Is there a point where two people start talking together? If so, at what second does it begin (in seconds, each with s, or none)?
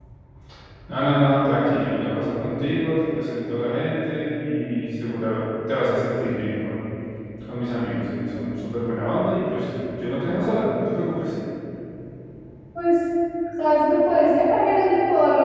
none